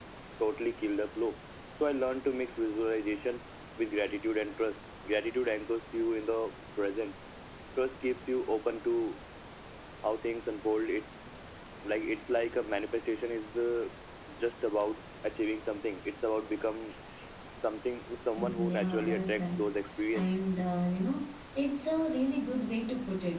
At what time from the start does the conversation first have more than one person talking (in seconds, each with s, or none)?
18.4 s